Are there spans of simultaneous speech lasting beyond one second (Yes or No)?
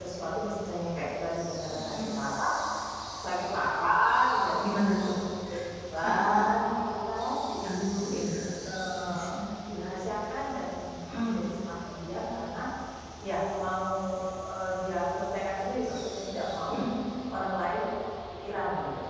No